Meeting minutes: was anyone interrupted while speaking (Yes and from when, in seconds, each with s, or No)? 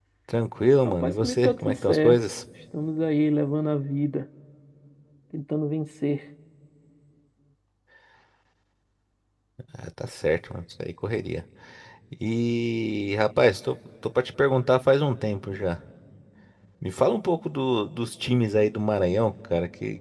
Yes, from 0.8 s